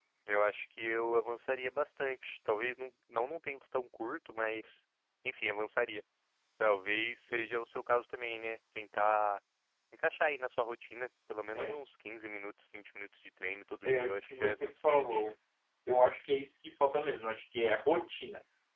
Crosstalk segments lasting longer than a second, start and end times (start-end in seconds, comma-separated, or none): 13.8-15.2